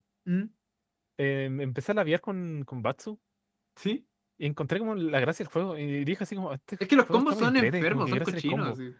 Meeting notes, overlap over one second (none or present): present